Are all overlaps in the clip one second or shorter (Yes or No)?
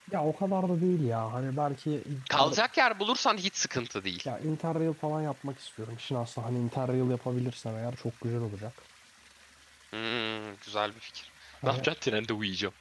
Yes